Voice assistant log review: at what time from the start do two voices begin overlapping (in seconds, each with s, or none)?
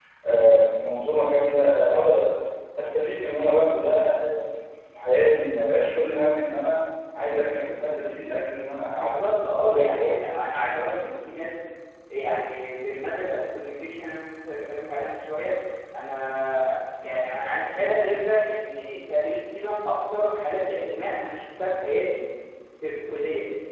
9.0 s